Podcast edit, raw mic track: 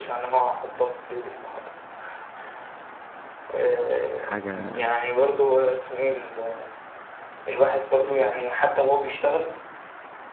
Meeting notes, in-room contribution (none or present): present